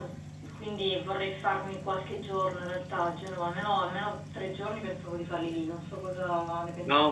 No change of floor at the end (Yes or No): No